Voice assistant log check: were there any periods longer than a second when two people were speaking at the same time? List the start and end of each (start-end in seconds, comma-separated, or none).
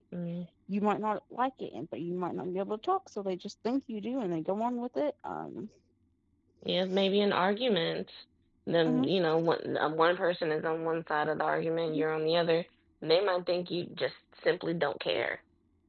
none